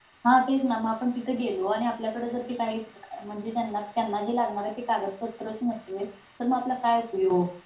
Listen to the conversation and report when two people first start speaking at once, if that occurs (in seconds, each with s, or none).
none